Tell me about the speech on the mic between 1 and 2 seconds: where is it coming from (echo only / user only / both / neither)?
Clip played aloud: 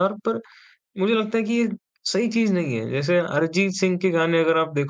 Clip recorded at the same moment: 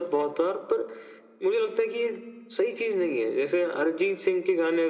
echo only